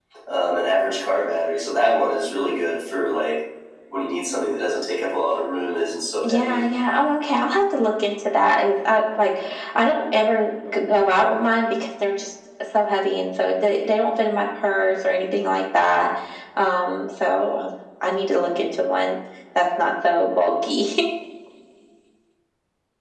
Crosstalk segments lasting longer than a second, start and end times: none

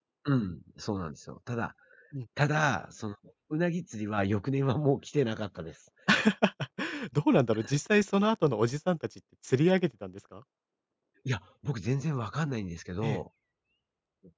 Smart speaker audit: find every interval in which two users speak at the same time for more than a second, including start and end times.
none

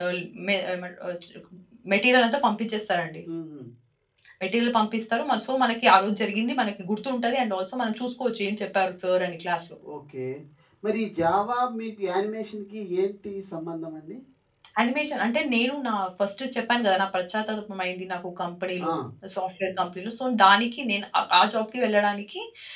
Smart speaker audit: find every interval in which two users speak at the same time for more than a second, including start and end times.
none

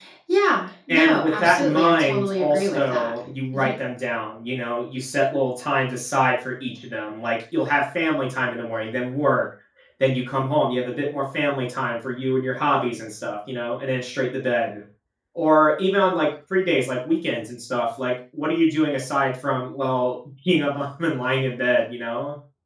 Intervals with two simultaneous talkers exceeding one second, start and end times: 0.9-3.1

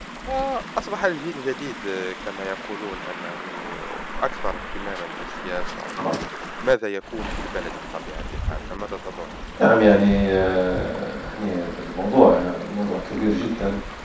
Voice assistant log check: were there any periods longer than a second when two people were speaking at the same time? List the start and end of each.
none

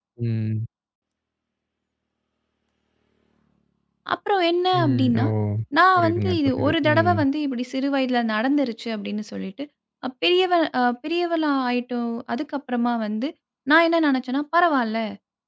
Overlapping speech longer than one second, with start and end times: 6.0-7.2

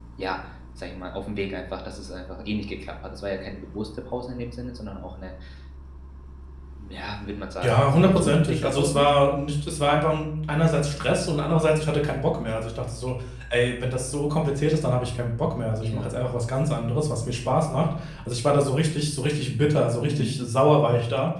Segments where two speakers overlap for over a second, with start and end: 7.6-9.1

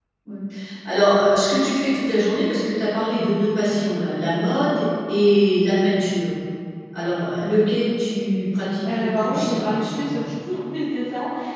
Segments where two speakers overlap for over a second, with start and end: 8.8-10.2

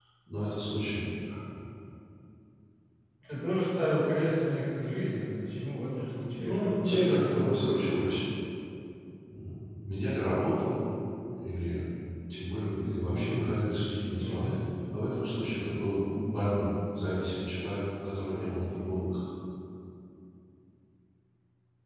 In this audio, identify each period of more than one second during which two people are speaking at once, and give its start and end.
6.3-8.0

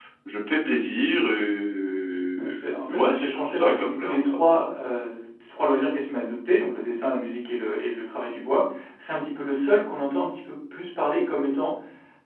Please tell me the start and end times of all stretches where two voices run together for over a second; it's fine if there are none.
2.9-4.7

